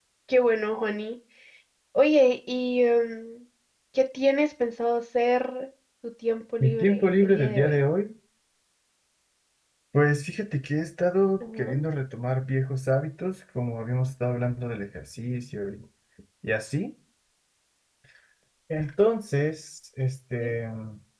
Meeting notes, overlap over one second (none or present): present